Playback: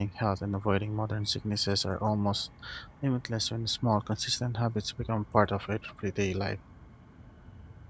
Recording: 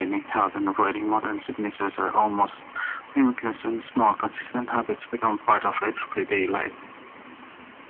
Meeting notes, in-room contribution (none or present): none